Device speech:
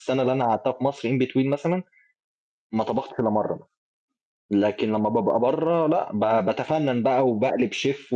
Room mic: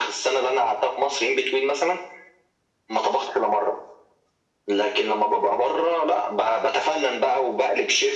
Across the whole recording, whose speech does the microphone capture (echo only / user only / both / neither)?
echo only